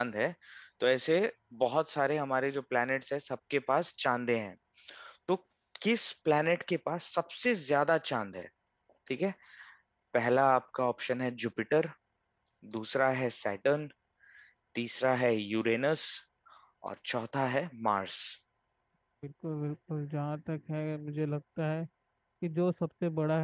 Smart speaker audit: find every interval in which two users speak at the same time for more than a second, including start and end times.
none

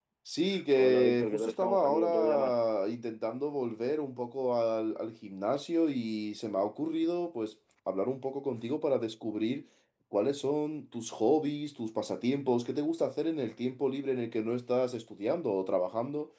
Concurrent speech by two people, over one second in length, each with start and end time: 0.7-2.6

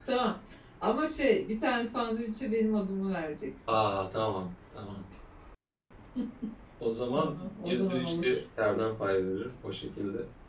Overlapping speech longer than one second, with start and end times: 7.2-8.4

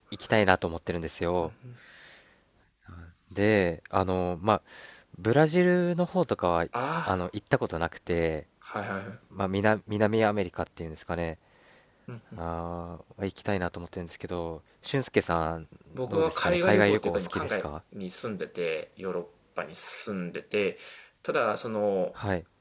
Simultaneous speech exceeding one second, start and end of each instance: 16.1-17.7

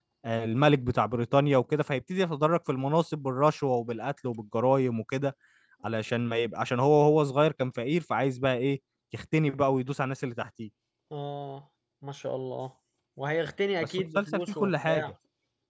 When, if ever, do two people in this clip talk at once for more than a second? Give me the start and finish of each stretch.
13.8-15.1

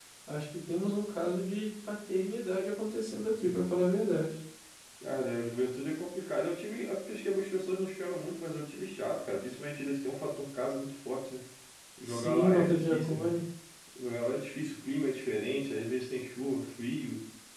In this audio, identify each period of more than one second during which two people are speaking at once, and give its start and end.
12.1-13.3

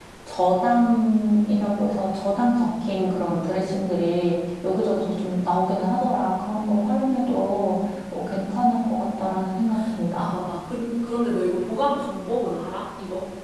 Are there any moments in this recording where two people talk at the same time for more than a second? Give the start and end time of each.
none

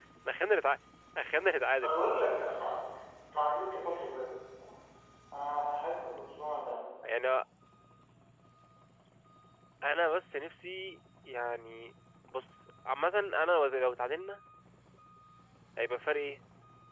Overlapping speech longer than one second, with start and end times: none

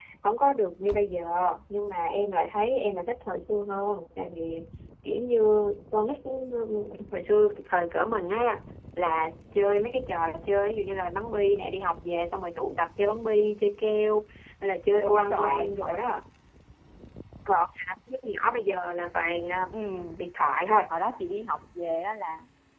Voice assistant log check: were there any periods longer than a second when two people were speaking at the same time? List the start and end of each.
14.9-16.2

